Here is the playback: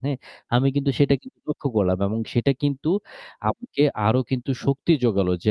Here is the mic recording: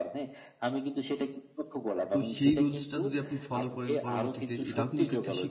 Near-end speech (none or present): present